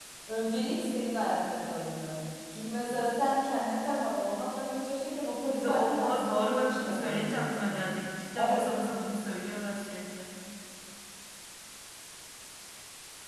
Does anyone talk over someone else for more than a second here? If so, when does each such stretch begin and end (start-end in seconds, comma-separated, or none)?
5.5-7.9